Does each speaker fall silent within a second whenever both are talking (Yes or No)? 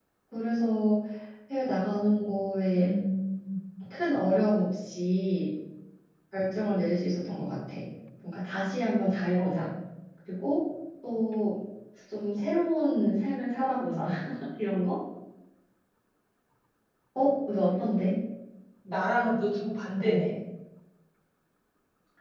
Yes